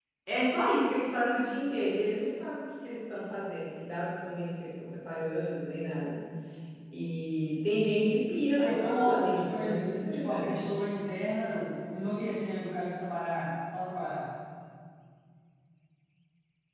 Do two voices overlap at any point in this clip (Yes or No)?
Yes